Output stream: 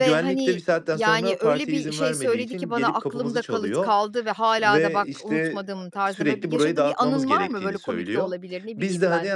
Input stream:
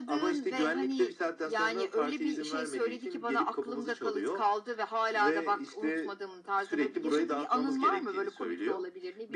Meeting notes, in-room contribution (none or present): none